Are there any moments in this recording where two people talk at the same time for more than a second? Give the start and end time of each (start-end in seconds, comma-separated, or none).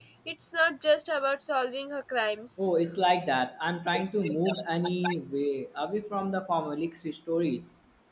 none